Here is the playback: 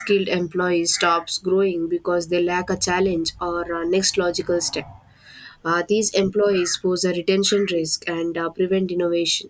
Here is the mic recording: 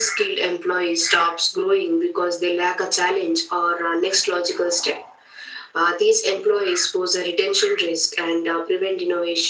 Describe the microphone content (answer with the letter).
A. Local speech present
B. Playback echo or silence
B